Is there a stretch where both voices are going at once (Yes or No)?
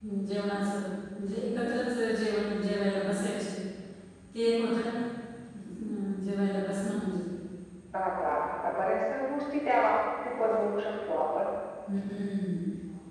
No